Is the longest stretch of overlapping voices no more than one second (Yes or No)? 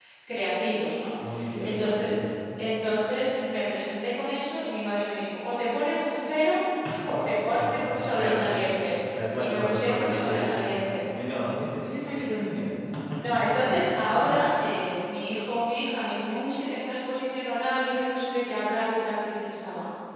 No